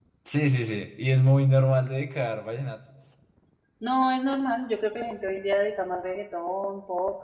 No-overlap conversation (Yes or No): Yes